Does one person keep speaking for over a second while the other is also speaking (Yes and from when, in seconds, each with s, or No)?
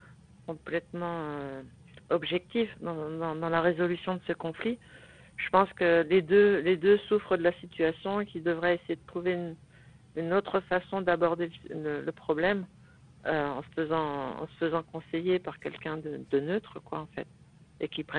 No